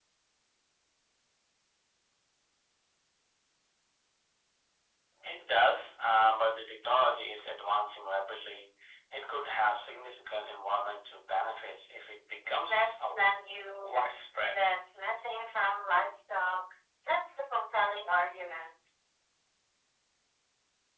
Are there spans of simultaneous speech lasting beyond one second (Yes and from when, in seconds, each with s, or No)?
No